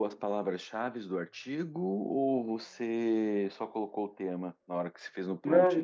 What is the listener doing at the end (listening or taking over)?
taking over